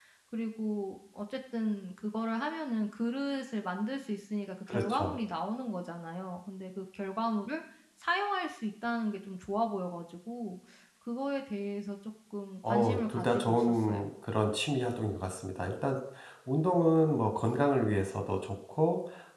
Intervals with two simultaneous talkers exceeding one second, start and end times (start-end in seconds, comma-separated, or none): 12.7-14.0